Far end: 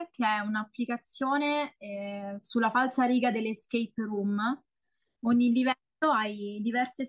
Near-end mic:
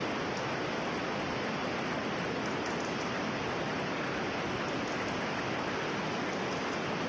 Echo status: none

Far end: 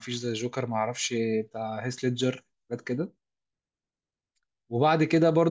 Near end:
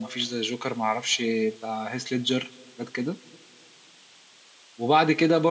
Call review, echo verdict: present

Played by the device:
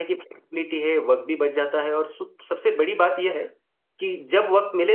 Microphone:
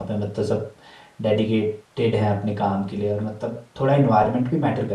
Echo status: none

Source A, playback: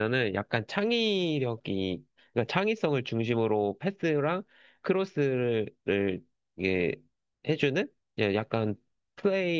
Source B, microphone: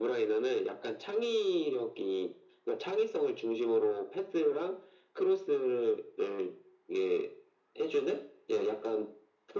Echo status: present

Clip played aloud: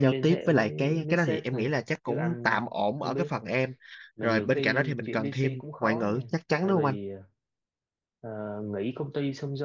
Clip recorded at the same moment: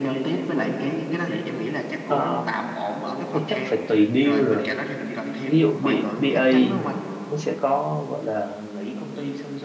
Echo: present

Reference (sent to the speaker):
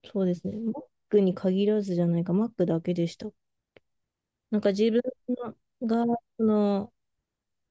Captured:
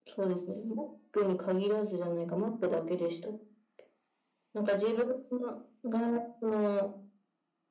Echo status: present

